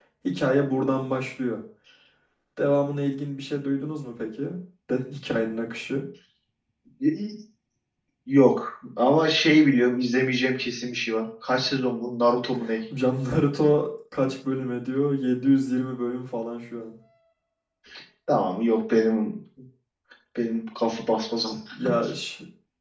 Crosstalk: none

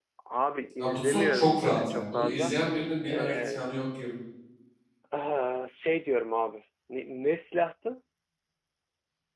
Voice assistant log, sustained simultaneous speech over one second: present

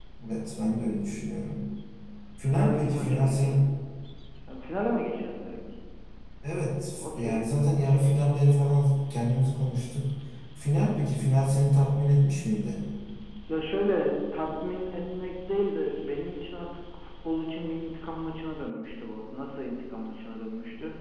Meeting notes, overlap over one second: present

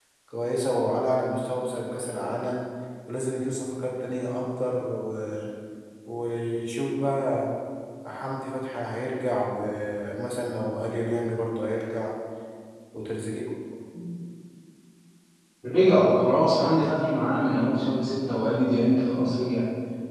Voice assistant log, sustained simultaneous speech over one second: none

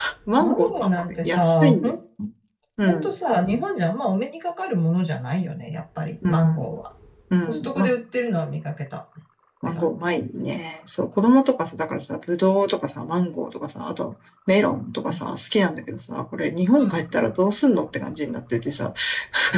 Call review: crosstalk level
present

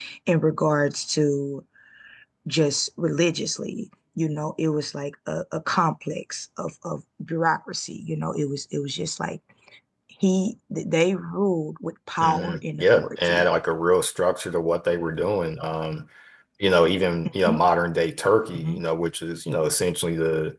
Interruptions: present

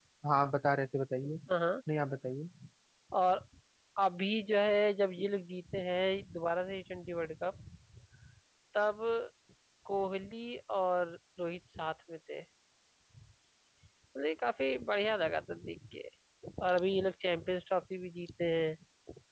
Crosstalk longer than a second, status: none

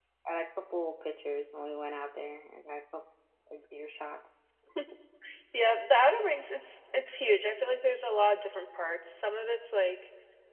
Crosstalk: none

